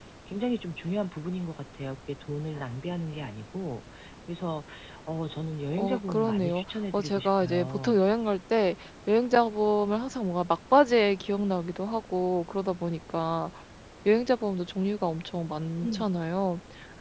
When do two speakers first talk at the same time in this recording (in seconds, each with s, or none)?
5.7 s